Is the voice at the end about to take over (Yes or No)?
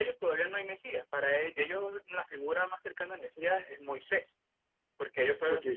No